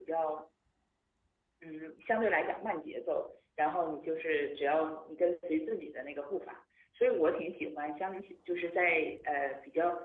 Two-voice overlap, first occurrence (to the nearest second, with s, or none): none